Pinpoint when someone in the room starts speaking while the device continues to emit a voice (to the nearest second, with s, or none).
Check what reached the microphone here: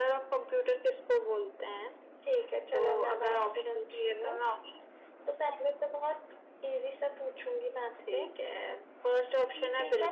none